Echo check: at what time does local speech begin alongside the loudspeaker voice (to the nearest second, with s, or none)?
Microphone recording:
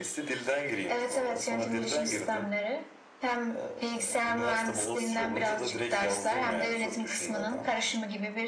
none